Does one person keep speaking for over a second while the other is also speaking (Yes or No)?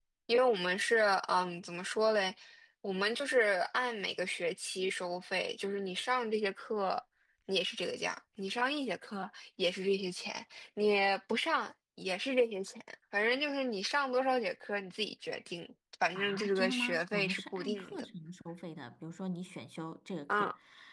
Yes